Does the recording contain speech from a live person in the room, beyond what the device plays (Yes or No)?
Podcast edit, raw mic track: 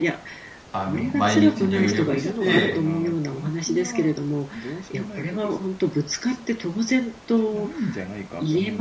Yes